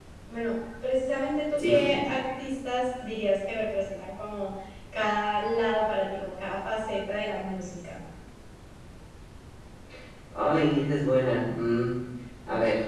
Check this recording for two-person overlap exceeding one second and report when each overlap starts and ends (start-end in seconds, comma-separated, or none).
none